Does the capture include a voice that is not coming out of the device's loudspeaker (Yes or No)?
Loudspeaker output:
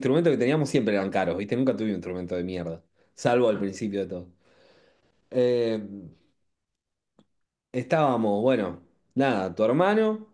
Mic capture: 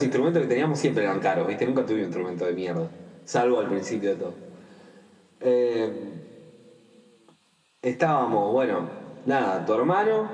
No